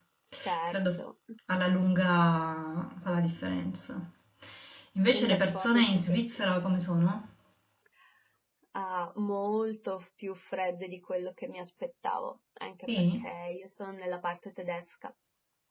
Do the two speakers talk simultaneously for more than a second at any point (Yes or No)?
Yes